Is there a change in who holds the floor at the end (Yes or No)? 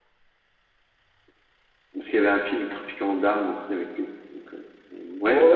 Yes